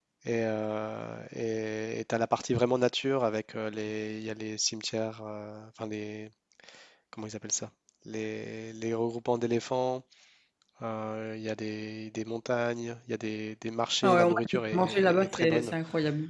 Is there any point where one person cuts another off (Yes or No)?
Yes